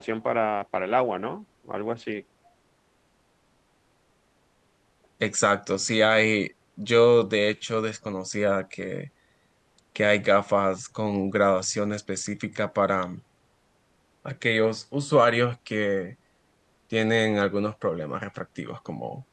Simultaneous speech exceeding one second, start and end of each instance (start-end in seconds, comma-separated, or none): none